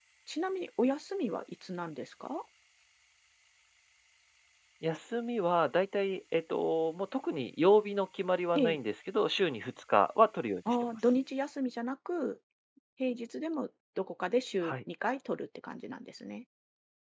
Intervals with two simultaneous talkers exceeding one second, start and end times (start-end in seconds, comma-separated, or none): none